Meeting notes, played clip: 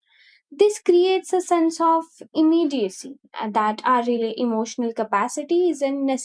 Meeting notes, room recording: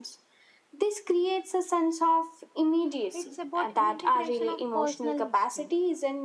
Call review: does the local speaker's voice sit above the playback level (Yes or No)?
No